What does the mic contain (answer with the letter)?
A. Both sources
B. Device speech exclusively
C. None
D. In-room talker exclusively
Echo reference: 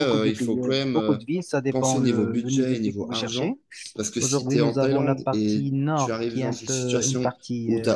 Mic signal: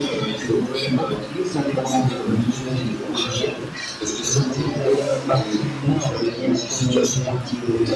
B